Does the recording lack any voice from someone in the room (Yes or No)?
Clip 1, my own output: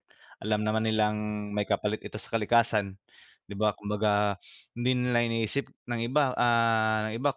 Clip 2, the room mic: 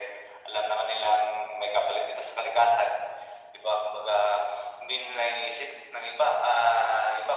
Yes